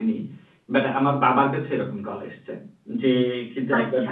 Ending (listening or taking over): listening